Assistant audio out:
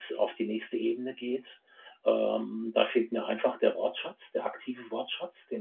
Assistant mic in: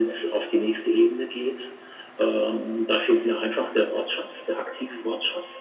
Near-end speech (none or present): none